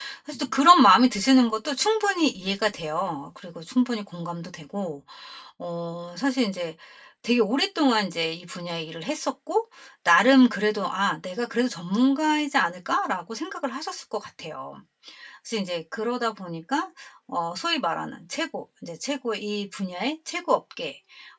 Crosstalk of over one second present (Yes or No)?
No